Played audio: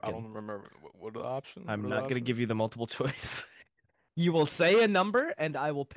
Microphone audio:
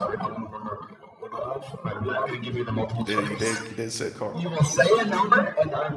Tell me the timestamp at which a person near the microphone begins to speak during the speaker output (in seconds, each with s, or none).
2.9 s